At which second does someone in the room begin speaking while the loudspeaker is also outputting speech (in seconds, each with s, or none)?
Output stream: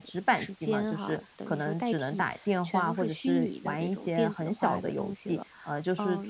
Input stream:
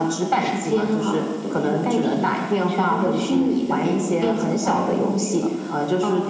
none